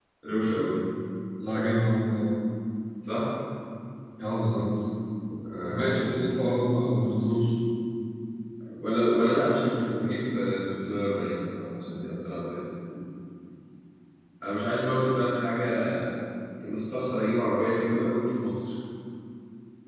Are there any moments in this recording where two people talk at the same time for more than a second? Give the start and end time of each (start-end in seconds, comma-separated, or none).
none